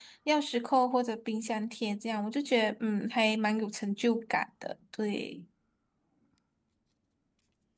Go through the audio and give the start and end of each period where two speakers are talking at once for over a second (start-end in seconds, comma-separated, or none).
none